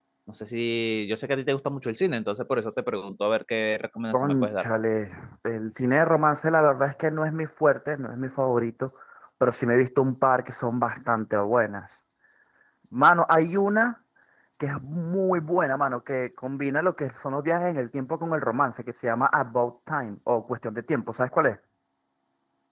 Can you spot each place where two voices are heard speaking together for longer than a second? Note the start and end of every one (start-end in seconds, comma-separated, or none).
none